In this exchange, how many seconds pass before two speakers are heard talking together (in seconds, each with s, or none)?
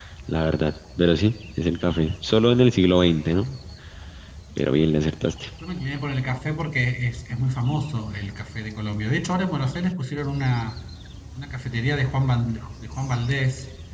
none